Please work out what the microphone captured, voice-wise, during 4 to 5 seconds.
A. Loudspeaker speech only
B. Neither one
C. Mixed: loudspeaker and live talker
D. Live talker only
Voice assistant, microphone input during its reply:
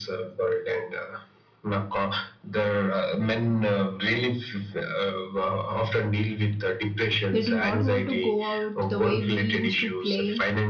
A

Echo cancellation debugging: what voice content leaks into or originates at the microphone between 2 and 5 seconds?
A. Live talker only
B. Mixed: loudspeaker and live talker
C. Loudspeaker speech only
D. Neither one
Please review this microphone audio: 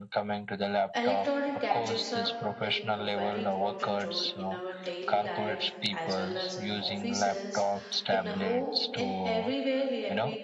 B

